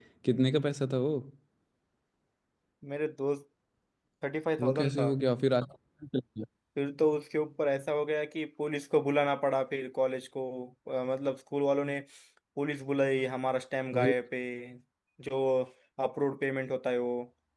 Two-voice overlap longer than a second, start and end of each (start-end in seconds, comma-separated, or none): none